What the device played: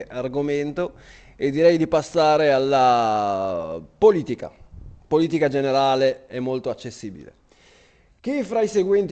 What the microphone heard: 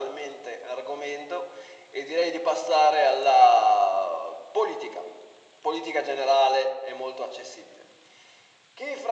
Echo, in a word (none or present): present